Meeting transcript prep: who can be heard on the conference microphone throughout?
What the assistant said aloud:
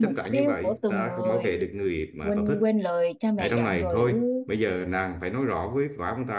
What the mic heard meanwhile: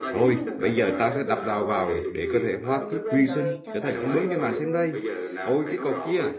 both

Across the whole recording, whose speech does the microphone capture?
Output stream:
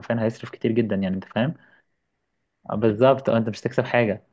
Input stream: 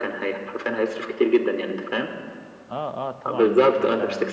both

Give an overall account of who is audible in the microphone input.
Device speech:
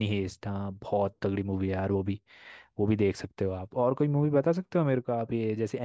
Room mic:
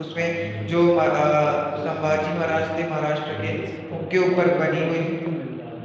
both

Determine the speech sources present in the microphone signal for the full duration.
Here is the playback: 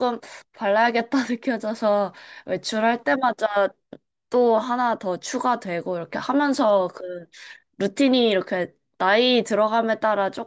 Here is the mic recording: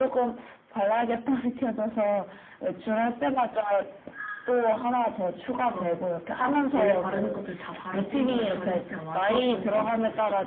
both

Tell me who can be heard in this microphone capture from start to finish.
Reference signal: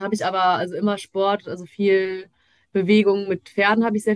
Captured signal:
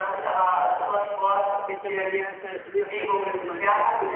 both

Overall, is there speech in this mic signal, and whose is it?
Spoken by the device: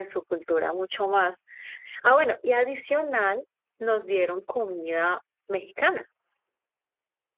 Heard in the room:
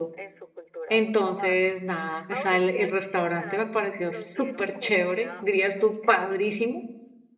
both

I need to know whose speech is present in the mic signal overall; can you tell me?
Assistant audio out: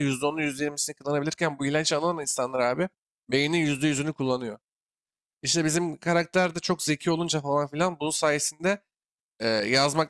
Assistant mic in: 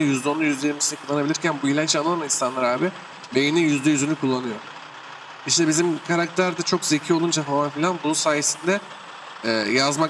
echo only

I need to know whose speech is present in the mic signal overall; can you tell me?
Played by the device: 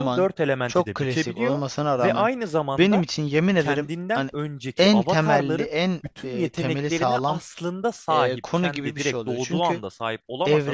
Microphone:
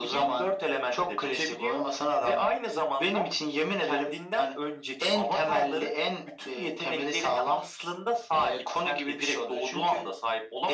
echo only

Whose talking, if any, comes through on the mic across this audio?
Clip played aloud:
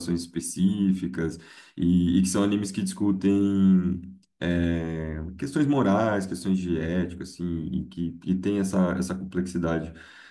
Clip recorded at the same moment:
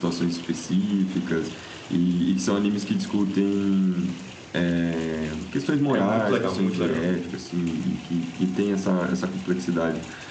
both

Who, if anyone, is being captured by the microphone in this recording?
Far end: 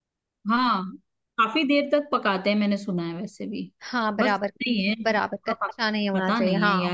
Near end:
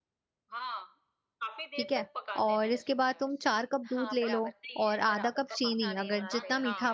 both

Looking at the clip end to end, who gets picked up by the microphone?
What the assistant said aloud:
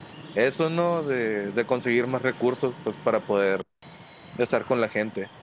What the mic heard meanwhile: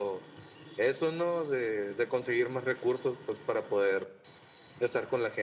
echo only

